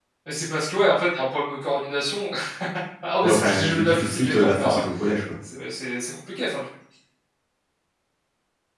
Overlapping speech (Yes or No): Yes